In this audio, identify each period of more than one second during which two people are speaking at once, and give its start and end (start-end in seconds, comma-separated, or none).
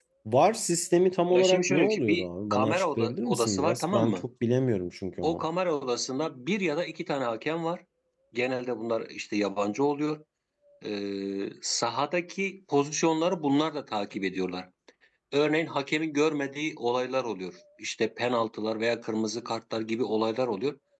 1.3-4.2